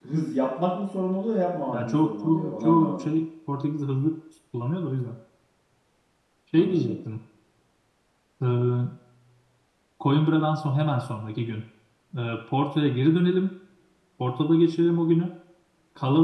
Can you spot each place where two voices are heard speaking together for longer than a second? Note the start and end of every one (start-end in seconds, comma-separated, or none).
1.7-3.1